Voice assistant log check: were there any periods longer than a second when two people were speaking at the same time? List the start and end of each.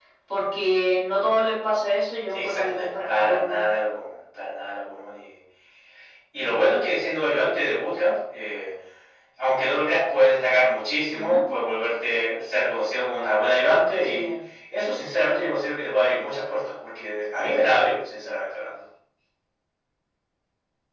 2.3-3.6

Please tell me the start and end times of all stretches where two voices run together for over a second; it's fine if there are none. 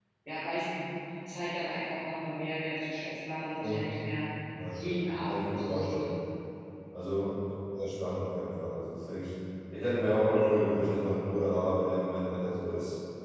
4.7-6.0

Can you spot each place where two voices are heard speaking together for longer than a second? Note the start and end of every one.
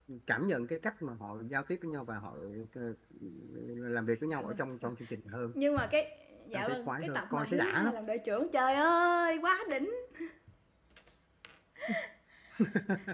6.5-7.9

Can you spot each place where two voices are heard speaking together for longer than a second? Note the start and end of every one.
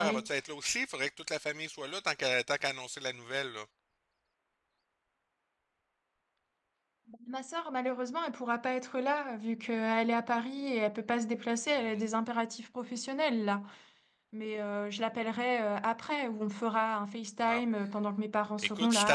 none

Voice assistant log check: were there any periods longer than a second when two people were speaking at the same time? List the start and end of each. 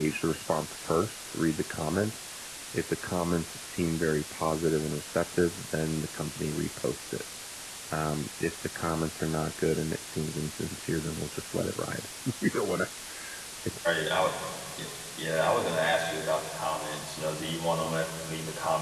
none

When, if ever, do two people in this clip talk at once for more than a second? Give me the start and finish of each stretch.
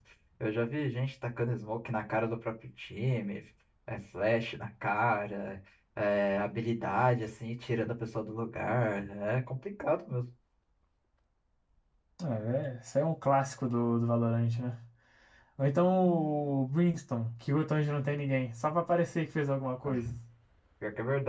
none

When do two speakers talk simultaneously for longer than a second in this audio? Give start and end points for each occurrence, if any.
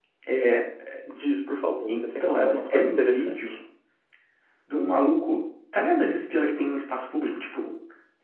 1.9-3.5

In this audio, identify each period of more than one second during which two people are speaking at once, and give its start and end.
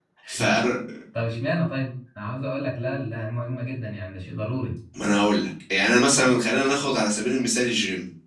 none

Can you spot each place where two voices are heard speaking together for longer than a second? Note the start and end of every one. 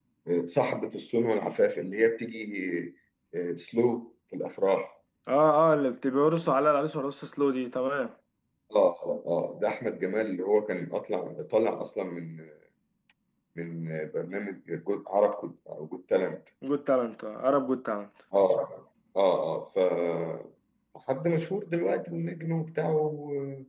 none

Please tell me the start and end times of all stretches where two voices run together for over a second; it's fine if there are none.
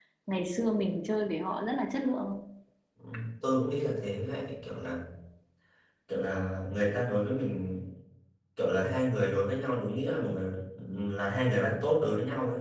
none

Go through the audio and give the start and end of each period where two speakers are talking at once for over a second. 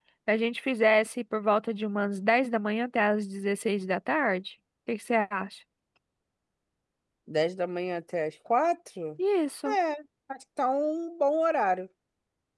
none

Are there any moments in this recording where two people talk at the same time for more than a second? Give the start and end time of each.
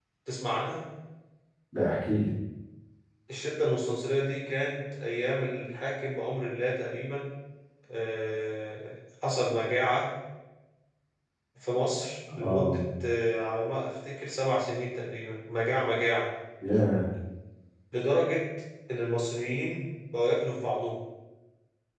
none

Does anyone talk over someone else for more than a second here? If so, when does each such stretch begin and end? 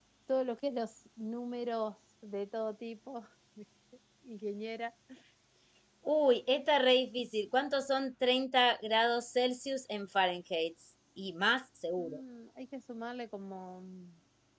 none

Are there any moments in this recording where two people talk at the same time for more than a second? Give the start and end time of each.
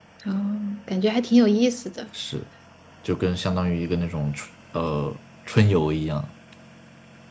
none

